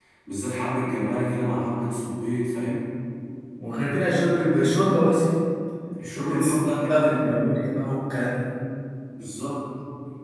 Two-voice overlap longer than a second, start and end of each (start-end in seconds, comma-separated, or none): 6.1-7.4